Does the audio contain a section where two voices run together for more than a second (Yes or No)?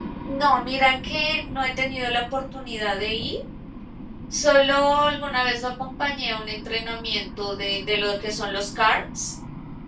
No